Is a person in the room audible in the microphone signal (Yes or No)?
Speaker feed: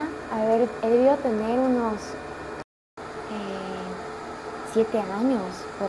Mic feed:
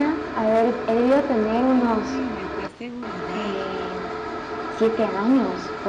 Yes